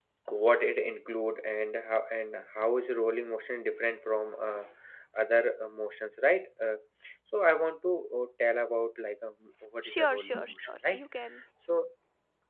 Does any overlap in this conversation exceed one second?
Yes, from 9.8 s

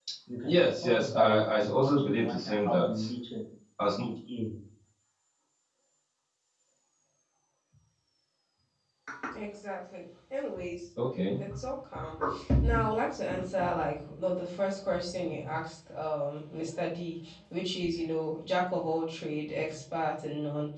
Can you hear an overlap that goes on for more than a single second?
Yes, from 0.6 s

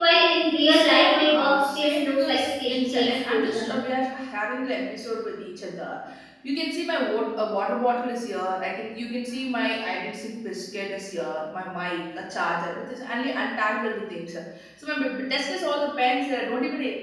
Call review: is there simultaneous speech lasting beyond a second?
Yes, from 0.7 s

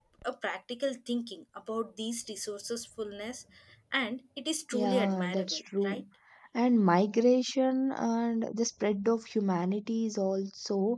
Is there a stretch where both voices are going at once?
Yes, from 4.7 s

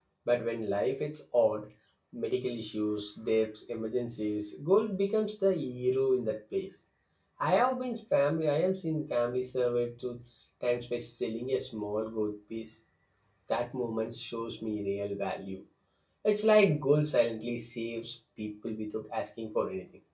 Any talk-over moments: No

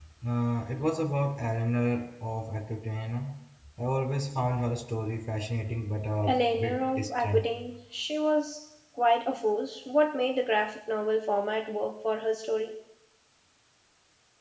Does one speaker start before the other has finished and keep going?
Yes, from 6.2 s

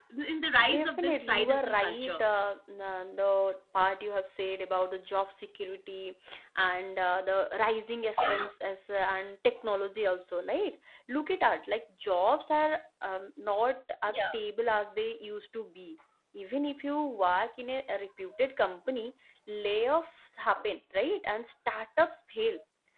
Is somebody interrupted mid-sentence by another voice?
Yes, from 0.7 s

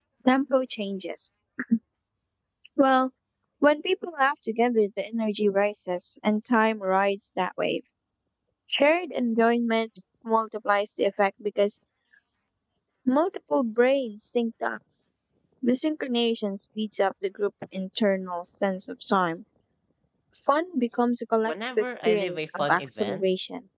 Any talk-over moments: Yes, from 21.4 s

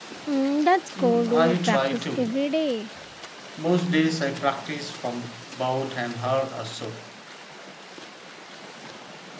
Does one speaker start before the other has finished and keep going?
Yes, from 1.0 s

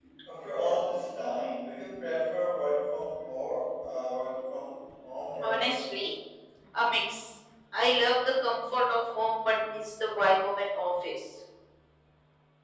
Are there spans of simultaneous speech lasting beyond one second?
No

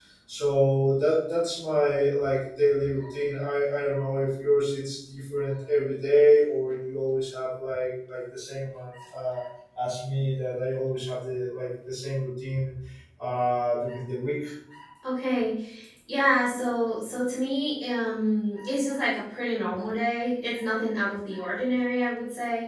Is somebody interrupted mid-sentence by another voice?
No

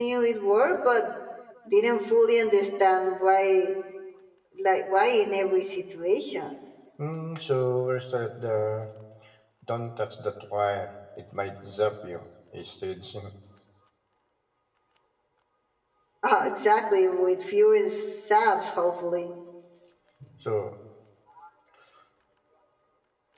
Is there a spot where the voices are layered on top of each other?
No

